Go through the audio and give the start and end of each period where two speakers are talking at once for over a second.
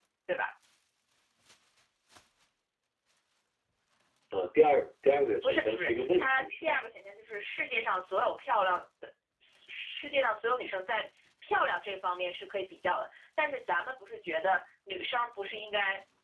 5.4-6.8

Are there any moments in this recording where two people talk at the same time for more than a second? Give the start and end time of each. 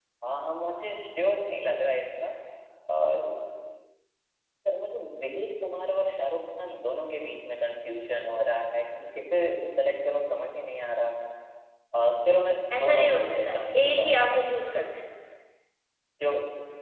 12.7-14.4

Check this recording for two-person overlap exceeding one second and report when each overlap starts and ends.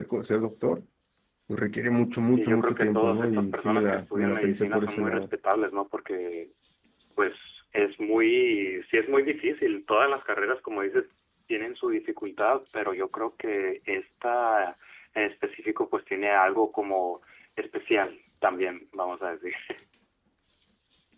2.3-5.3

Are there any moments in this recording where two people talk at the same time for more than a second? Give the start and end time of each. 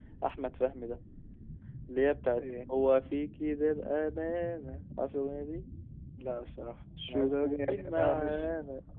7.1-8.5

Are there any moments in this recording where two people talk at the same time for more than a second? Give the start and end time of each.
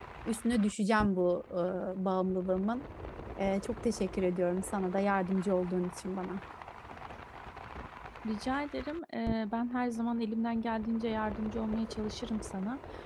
none

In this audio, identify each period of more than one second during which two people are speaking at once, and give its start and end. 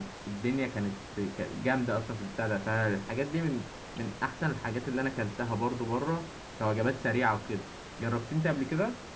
none

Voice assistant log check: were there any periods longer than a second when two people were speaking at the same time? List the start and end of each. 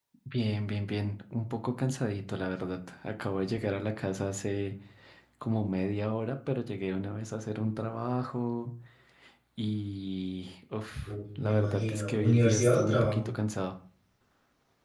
11.1-13.3

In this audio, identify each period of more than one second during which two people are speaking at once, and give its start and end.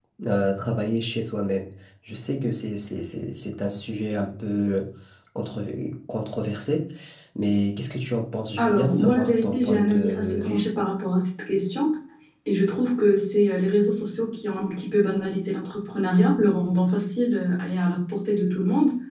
8.6-10.7

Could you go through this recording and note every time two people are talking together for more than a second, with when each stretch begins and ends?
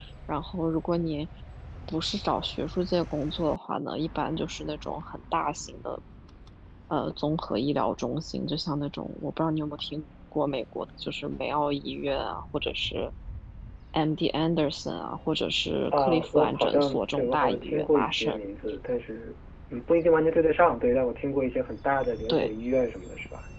15.9-18.4

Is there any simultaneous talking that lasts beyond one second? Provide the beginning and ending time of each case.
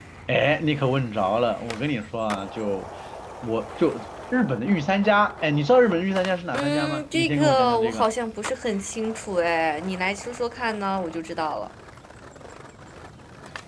6.5-8.1

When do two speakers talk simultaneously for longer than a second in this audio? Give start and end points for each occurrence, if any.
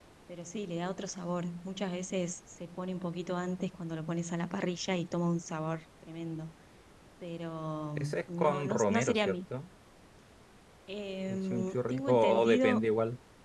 8.0-9.4, 11.3-12.8

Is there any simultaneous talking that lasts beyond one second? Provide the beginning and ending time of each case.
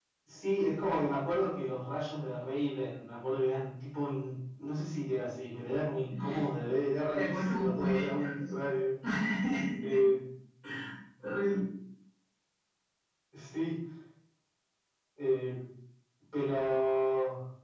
7.1-8.6

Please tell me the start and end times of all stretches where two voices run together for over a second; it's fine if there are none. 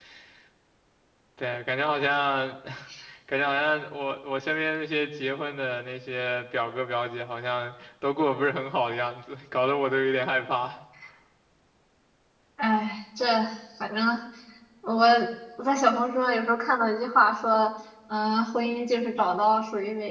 none

